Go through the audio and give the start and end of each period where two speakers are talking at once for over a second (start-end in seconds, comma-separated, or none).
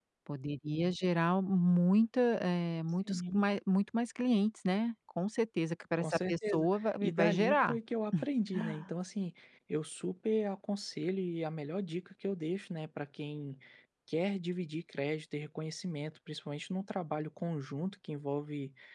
6.0-7.8